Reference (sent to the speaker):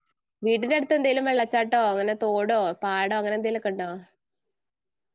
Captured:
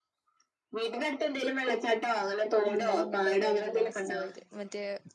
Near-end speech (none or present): present